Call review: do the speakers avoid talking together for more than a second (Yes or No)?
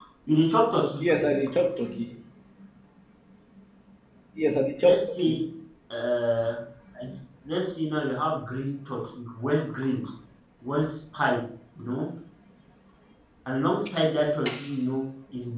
Yes